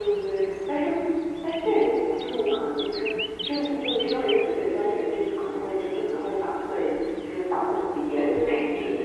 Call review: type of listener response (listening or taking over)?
listening